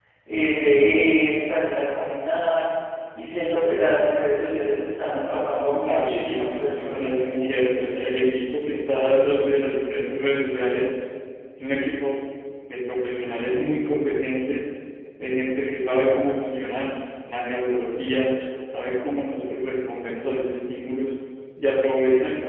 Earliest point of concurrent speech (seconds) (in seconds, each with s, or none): 5.8 s